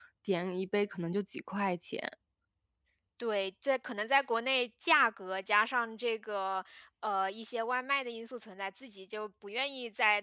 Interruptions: none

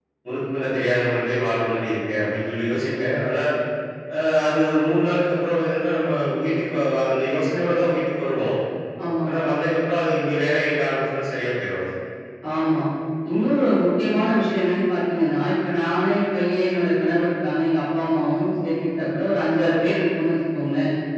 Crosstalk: none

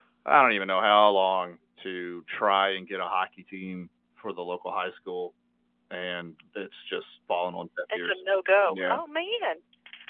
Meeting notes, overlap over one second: none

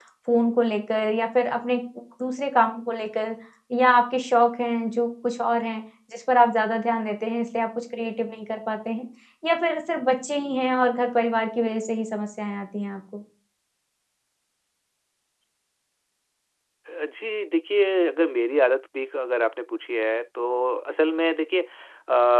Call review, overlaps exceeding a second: none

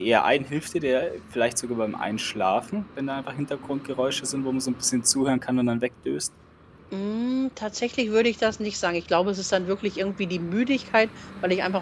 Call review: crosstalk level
none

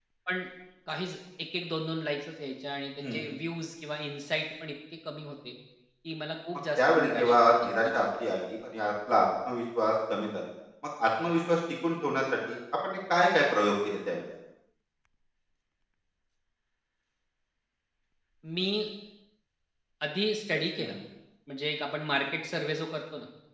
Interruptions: present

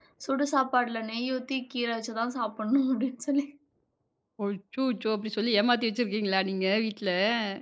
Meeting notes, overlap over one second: none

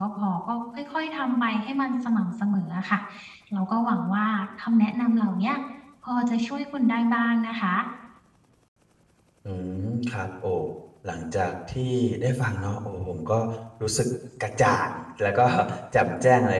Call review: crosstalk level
none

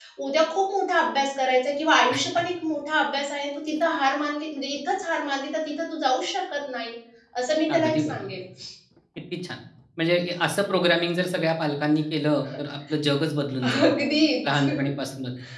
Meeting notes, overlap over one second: none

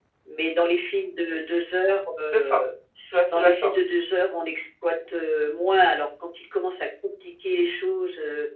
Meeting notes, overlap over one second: none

